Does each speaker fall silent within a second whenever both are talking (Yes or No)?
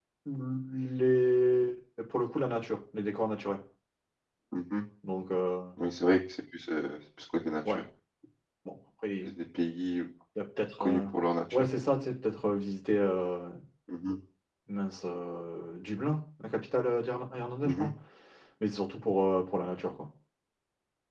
Yes